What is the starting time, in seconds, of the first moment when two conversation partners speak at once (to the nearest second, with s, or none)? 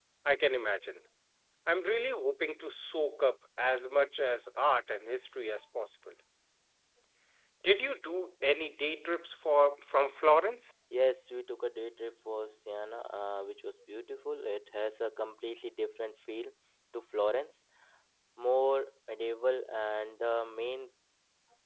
none